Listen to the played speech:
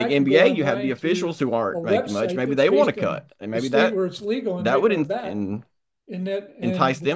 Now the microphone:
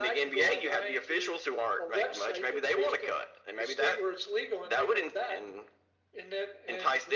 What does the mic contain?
echo only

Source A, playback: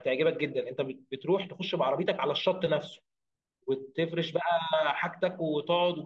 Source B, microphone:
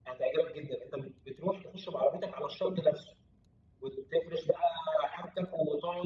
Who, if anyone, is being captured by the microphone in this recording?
echo only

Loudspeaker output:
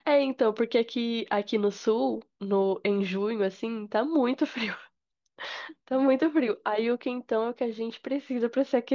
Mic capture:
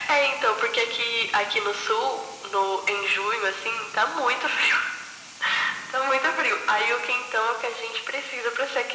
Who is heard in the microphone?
echo only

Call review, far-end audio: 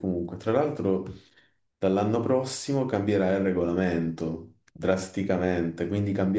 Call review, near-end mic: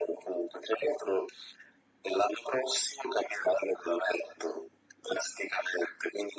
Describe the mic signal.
echo only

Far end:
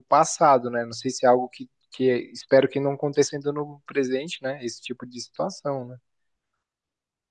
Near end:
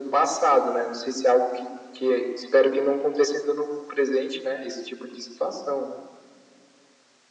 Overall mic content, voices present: echo only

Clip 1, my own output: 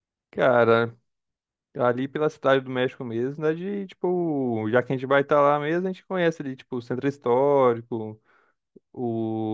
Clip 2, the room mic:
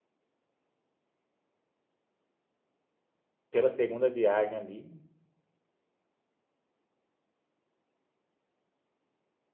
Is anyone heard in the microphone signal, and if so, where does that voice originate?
user only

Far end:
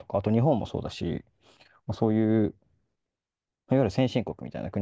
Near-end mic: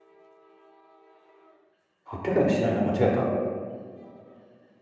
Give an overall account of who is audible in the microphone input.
user only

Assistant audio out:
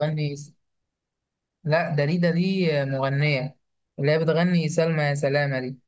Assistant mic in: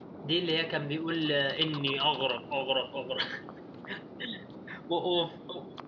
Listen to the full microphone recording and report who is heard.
user only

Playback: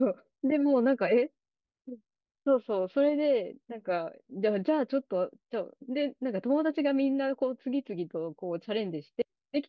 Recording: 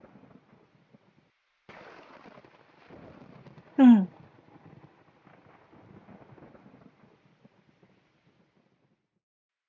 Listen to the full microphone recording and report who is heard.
user only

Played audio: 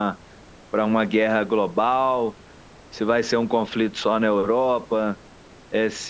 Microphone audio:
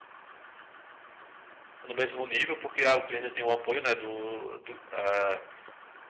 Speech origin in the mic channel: user only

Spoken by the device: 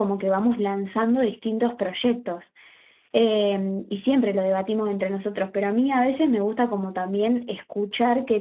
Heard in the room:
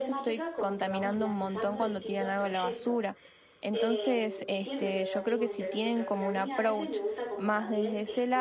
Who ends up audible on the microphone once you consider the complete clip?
both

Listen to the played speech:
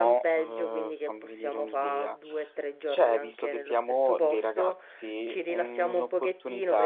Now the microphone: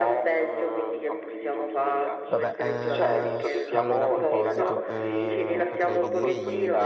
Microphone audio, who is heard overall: both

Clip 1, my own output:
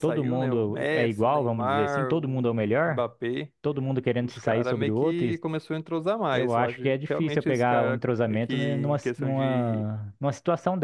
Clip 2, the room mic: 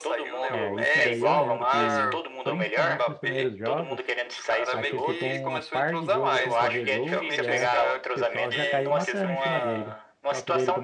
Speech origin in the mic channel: both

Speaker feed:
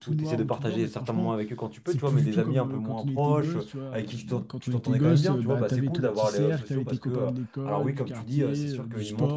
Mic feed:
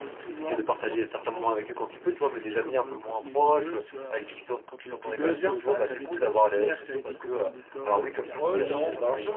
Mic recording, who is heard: both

